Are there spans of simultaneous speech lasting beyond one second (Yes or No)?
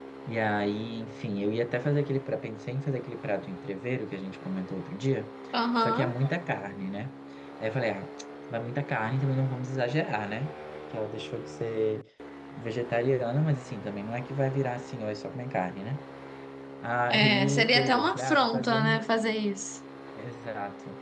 Yes